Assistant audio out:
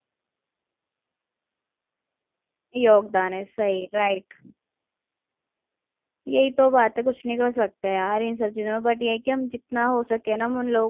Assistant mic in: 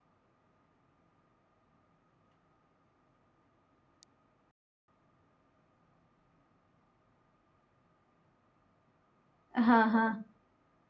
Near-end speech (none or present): present